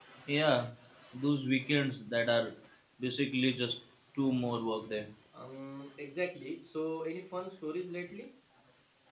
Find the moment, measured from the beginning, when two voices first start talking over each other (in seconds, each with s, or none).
none